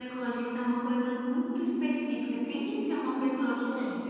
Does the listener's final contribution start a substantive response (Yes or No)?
No